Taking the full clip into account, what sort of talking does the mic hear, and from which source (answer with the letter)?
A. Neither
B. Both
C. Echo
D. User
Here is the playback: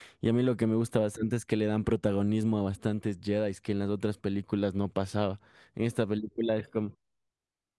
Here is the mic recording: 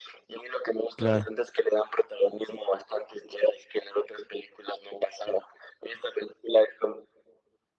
B